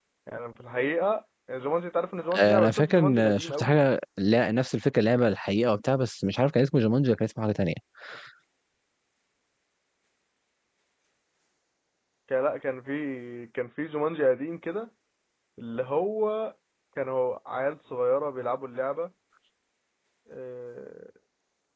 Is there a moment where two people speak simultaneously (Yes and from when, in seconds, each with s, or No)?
Yes, from 2.3 s